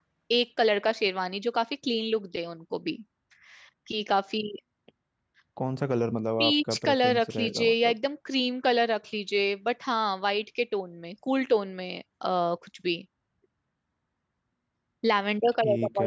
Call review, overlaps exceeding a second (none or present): present